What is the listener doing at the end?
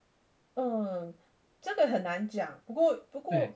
listening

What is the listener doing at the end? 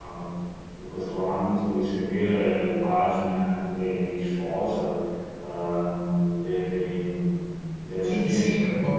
taking over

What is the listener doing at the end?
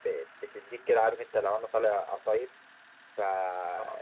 listening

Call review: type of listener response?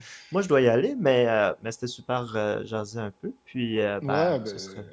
taking over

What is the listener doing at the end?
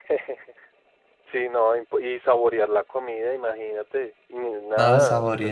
taking over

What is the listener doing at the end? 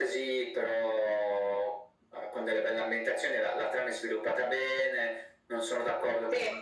listening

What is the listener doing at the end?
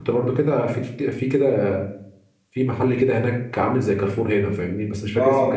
listening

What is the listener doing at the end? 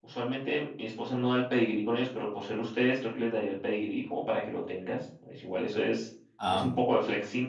listening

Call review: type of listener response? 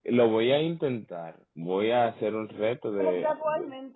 taking over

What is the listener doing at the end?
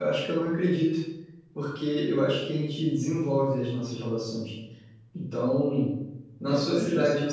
listening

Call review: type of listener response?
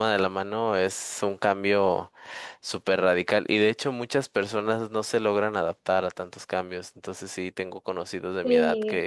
listening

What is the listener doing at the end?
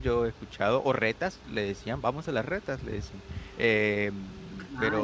listening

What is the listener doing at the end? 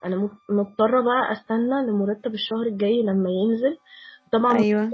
listening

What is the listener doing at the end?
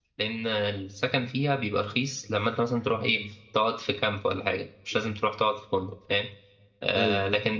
listening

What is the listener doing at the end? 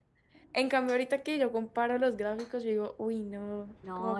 taking over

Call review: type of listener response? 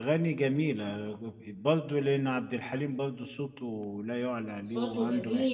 taking over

